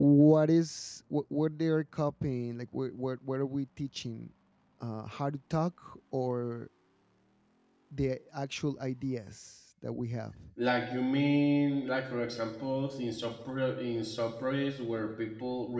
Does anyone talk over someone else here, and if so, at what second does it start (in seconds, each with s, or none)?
none